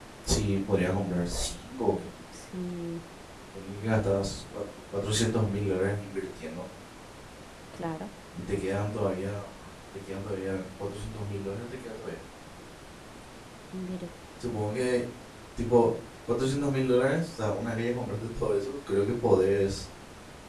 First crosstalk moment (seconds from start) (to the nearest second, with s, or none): none